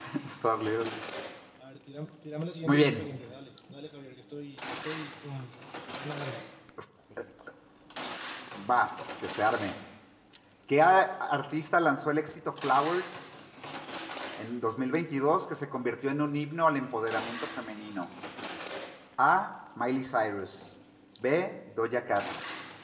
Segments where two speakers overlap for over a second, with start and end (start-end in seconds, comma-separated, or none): none